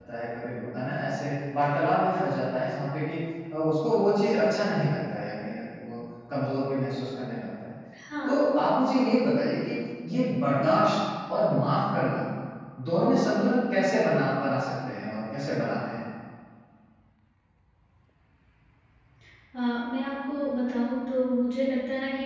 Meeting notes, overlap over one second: none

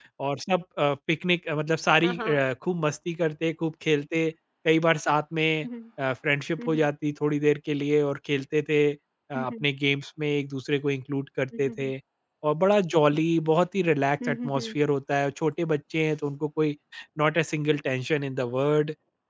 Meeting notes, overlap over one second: none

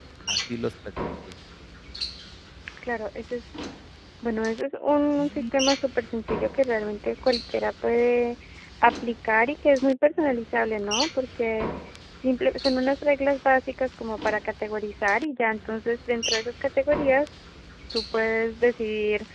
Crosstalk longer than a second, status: none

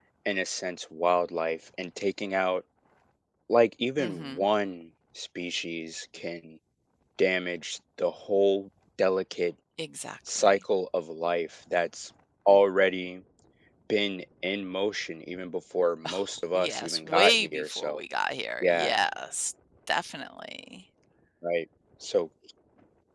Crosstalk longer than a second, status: present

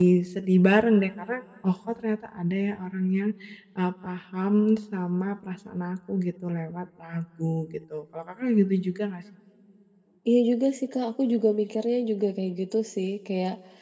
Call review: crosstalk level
none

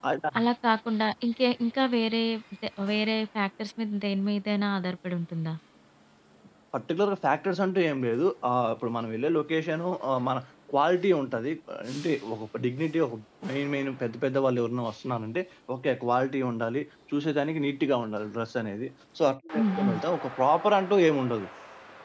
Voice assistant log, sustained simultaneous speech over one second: none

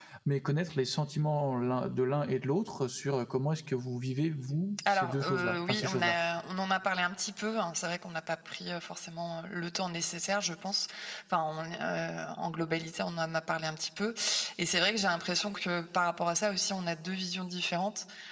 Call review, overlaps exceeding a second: present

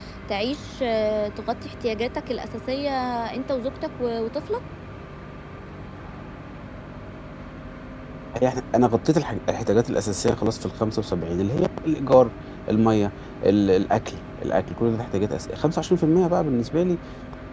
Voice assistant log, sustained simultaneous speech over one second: none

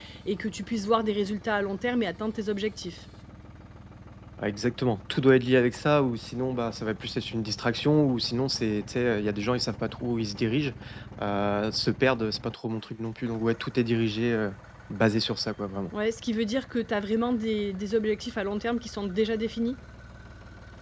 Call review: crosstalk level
none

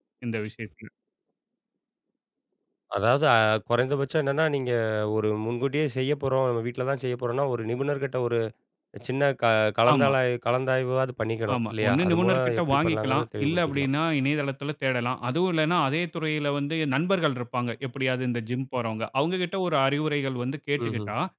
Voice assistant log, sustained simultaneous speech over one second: present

